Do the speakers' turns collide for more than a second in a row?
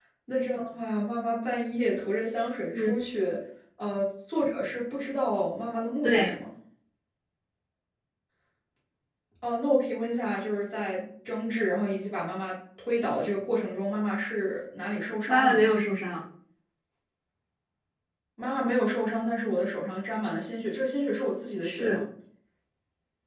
No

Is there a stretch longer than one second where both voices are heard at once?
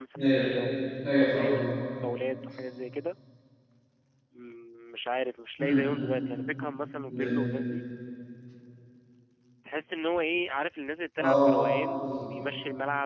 No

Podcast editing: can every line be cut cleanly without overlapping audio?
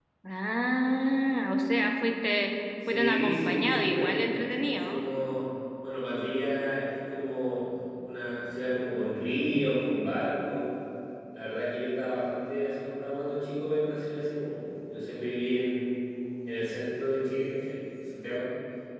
No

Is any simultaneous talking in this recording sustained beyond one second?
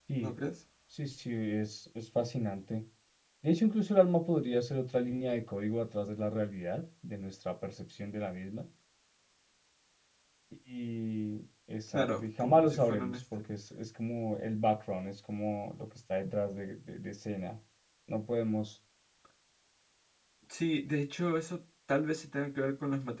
Yes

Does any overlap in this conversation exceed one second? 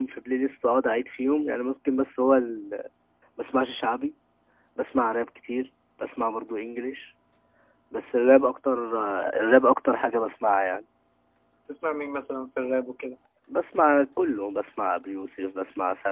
No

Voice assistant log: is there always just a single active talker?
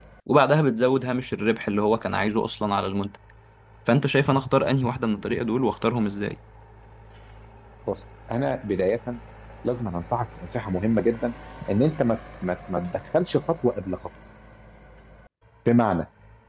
Yes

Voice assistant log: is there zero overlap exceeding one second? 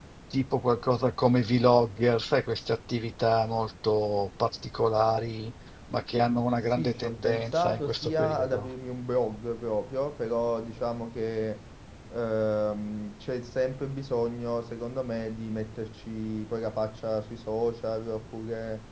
No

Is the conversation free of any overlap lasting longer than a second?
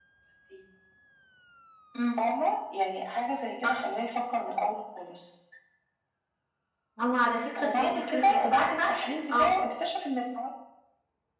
No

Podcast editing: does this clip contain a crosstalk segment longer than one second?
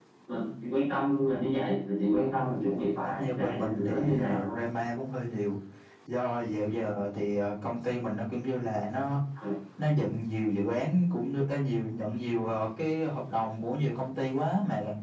Yes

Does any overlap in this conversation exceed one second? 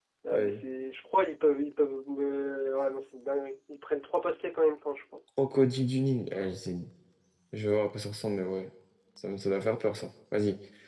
No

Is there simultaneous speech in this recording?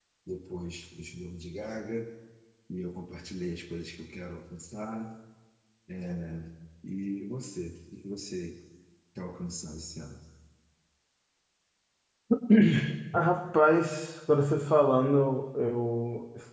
No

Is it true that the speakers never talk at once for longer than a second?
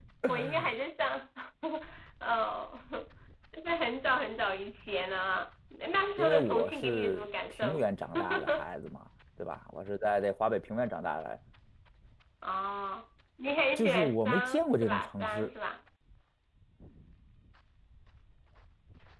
No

